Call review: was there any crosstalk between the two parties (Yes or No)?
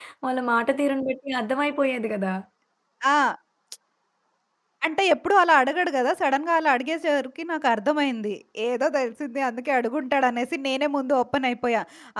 No